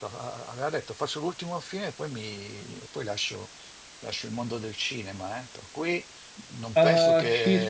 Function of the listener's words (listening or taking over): taking over